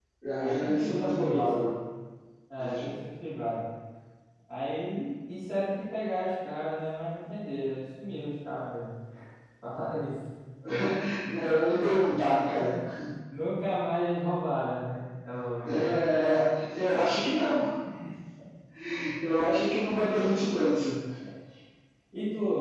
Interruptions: present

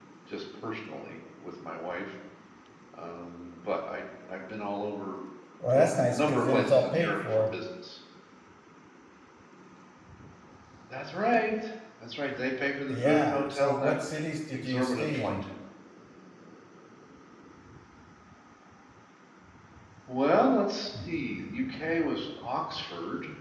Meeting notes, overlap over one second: present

